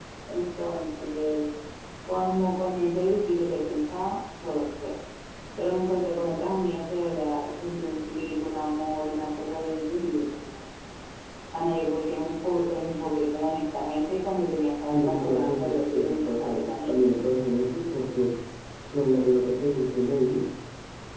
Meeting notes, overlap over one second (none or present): present